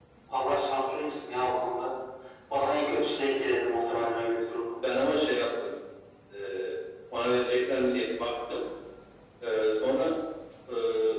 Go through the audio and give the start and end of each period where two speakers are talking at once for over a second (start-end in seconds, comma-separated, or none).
none